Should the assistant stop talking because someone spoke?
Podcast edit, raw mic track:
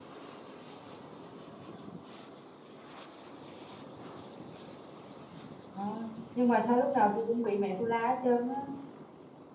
Yes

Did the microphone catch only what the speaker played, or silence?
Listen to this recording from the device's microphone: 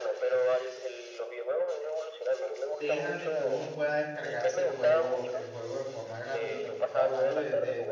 No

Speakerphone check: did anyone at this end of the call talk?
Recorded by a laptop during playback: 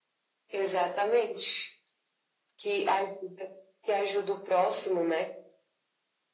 No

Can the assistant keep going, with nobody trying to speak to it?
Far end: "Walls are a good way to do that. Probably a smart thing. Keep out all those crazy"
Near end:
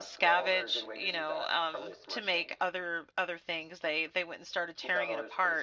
No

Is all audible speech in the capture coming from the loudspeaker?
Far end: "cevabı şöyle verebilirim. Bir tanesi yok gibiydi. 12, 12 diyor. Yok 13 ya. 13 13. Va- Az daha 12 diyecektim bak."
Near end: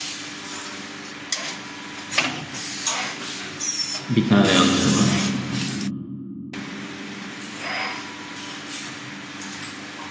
No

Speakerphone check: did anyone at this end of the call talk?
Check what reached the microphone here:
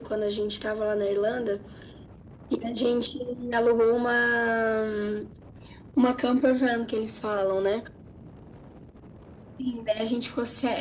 No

